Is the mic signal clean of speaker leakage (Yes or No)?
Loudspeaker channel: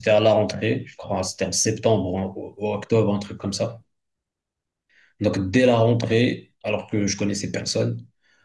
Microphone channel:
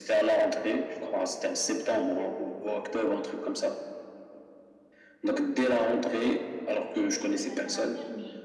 No